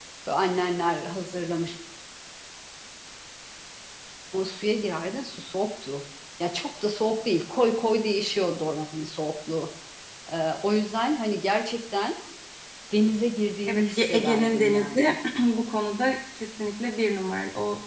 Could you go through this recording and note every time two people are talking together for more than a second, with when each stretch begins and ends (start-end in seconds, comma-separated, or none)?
13.7-15.2